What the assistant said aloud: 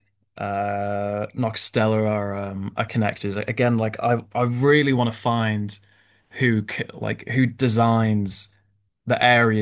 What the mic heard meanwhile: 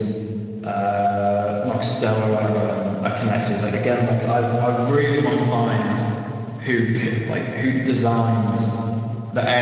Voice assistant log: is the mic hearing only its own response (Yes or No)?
Yes